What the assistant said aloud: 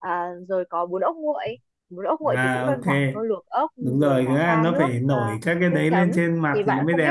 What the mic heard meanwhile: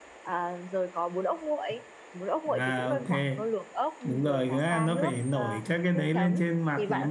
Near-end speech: none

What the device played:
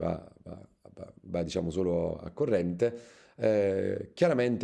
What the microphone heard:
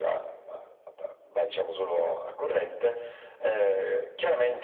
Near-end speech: none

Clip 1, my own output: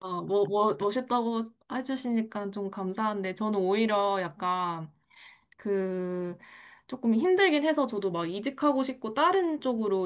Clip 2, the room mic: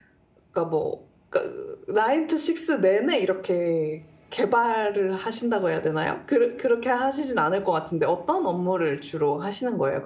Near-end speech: present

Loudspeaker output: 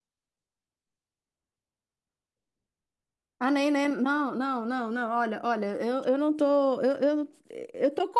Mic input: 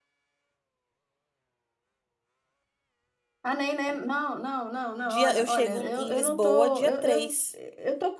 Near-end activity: present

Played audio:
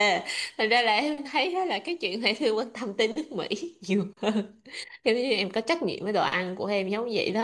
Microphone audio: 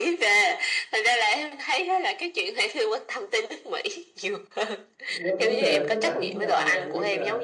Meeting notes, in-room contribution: present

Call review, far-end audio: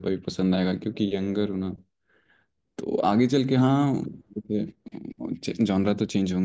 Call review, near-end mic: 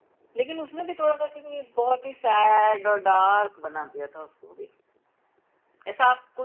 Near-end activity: present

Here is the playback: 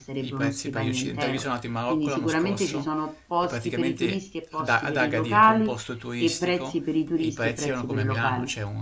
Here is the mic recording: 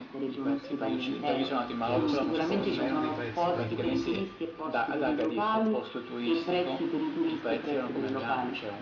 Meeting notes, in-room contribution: present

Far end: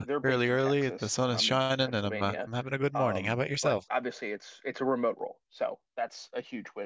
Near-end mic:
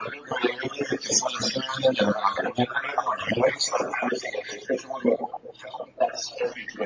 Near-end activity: none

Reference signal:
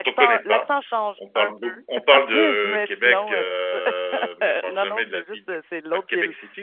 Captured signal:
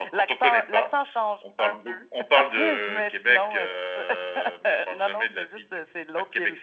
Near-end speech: none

